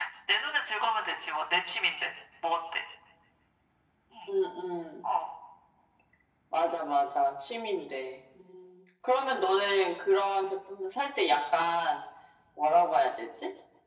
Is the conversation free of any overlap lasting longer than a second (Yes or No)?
Yes